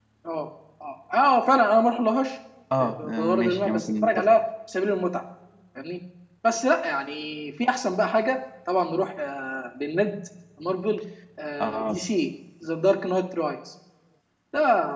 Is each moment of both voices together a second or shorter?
No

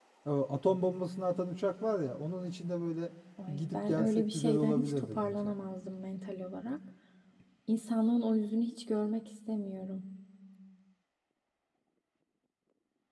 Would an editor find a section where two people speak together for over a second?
Yes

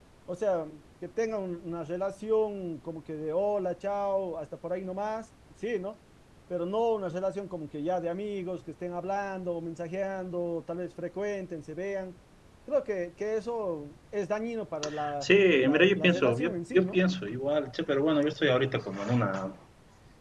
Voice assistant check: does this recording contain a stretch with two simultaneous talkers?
Yes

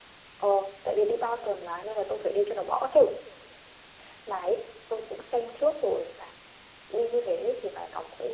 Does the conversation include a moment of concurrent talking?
No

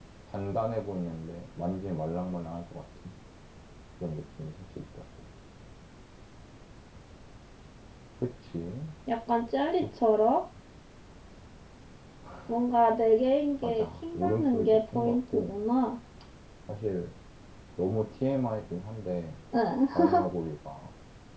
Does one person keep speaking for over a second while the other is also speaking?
Yes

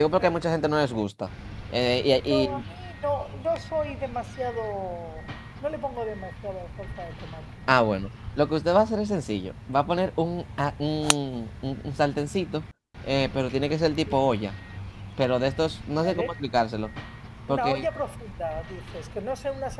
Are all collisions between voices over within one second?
Yes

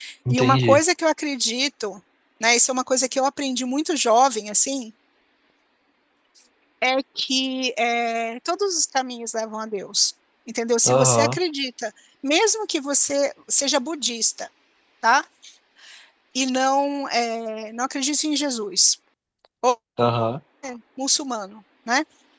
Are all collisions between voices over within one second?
Yes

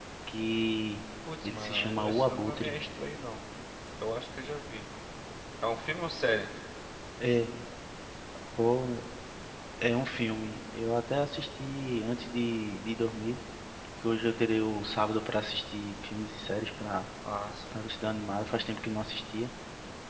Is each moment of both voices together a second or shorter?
No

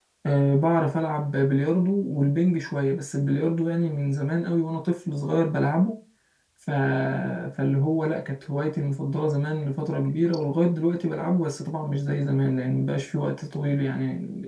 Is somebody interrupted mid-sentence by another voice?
No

